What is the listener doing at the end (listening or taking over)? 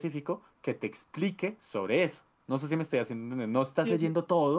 listening